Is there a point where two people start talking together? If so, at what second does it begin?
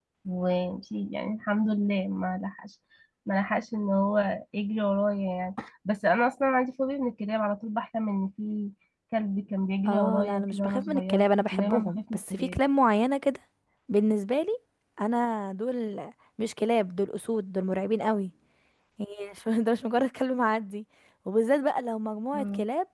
9.9 s

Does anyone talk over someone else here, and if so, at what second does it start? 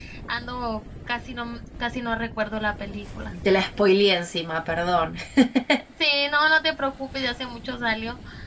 none

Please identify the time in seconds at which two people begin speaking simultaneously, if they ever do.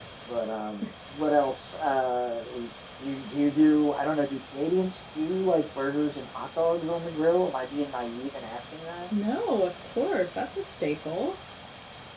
none

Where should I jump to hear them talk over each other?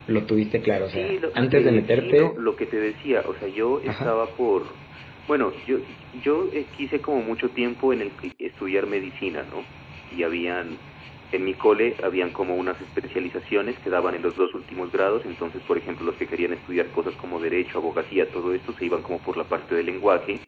0.8 s

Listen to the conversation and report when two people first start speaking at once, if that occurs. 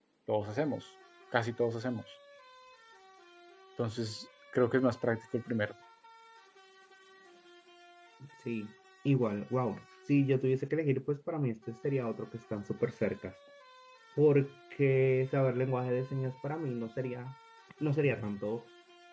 none

